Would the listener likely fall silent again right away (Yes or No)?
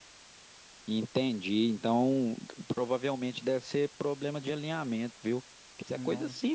Yes